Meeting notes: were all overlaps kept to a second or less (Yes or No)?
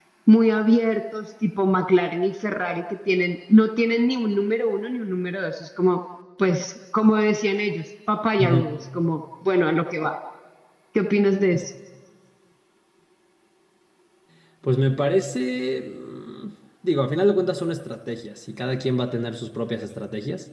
Yes